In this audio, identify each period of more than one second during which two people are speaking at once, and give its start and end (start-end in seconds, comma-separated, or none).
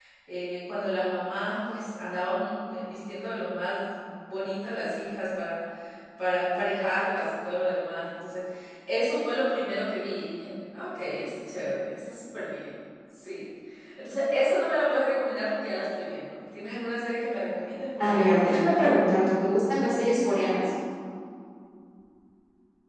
none